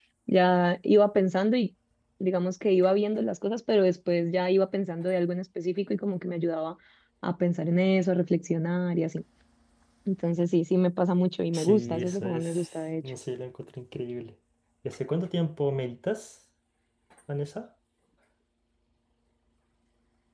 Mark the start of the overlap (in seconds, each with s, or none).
11.5 s